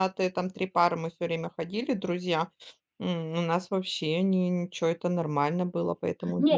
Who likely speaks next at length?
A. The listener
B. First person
A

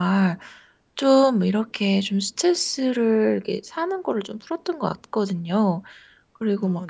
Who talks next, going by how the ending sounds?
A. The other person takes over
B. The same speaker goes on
B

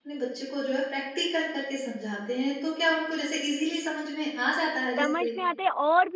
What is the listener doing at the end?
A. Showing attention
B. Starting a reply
B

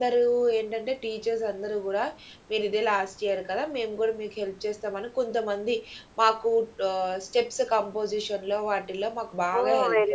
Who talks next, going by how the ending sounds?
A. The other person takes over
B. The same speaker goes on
A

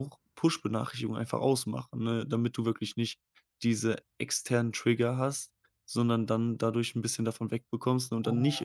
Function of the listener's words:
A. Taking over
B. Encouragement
B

